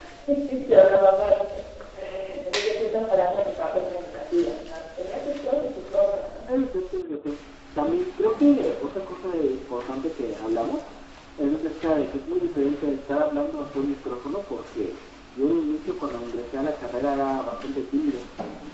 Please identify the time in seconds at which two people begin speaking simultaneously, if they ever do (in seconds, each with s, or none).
none